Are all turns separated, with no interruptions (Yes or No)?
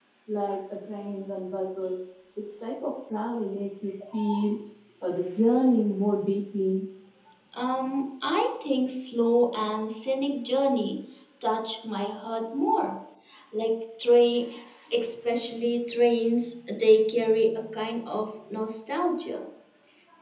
Yes